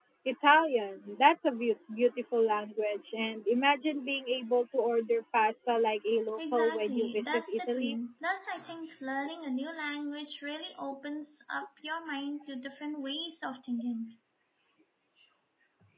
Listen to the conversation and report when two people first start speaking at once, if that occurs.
6.4 s

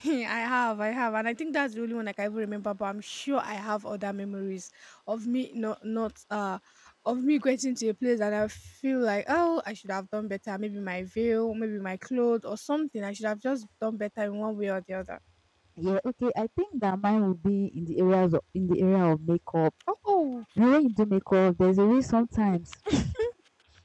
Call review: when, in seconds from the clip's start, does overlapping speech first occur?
none

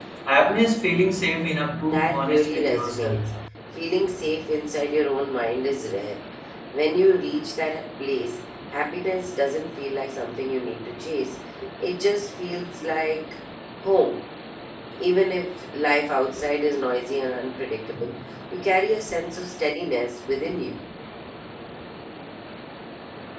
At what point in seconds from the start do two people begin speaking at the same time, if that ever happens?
1.9 s

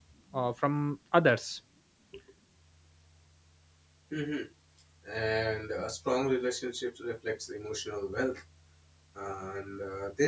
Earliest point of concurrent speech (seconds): none

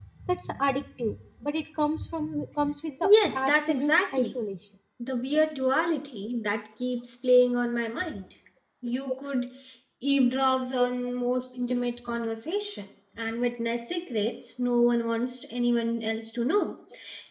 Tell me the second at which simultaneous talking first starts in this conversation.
3.0 s

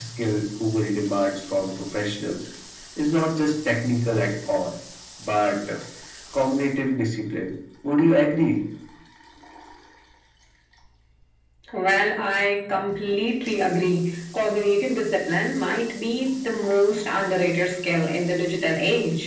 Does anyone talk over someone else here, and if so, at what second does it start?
none

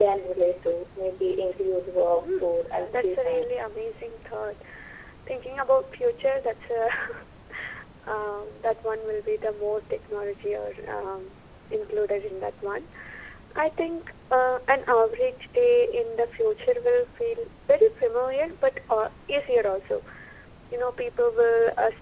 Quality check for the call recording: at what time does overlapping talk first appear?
2.2 s

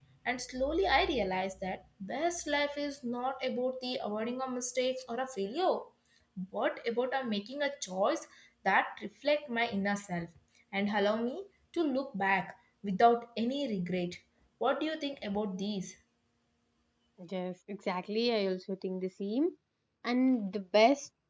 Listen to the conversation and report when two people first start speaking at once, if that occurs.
none

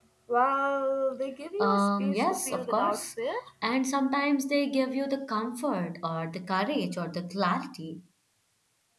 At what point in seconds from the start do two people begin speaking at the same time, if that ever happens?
1.6 s

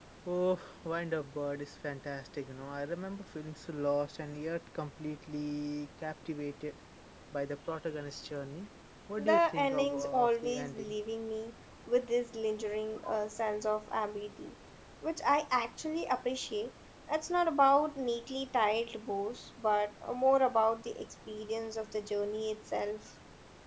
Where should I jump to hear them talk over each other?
9.2 s

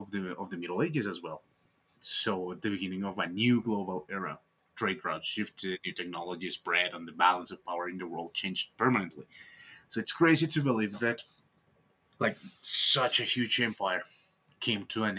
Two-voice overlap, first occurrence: none

